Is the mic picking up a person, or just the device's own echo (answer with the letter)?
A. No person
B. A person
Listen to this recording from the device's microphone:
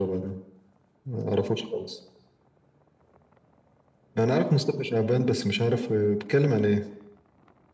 A